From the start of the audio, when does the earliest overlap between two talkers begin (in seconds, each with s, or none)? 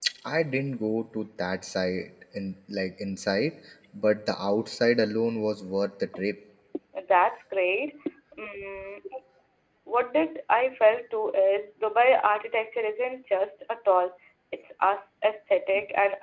none